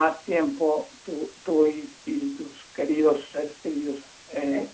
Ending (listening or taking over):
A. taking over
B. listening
B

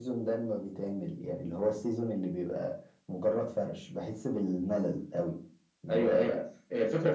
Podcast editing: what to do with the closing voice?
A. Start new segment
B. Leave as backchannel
A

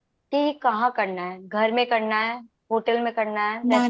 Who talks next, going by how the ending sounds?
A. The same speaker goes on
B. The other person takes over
B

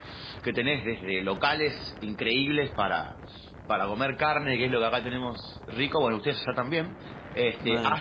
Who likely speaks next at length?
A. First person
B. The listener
A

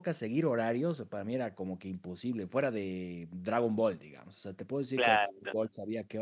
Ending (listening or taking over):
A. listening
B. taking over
A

